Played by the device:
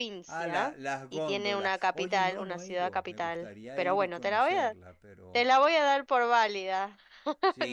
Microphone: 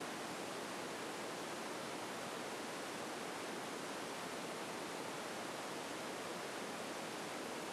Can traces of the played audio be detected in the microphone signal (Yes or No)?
No